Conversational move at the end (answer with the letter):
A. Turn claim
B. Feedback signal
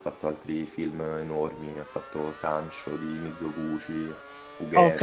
A